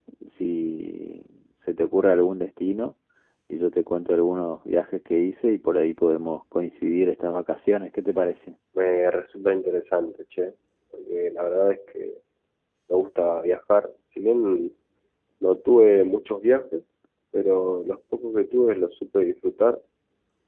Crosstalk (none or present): none